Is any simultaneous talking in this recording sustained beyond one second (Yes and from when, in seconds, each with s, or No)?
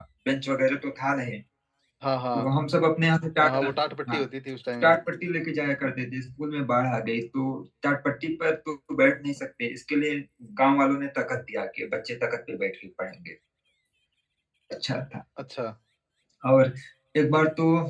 No